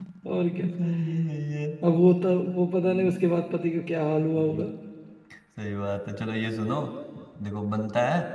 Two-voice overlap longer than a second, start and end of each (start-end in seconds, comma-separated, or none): none